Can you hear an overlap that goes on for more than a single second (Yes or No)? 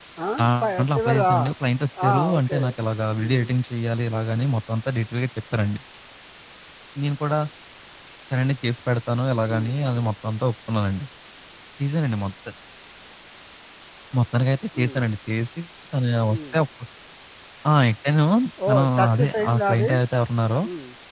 Yes